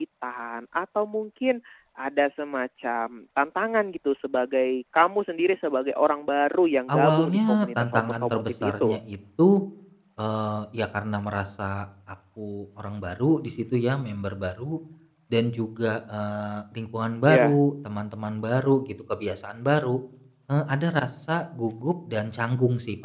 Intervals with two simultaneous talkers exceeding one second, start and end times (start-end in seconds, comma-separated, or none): 6.9-9.0